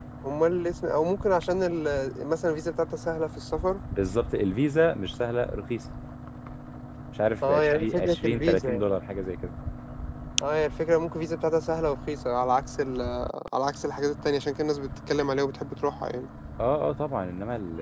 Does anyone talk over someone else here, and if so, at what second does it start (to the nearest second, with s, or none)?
7 s